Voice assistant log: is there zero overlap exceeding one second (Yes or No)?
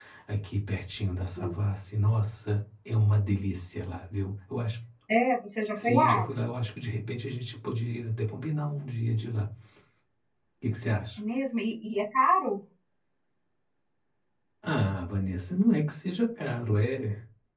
Yes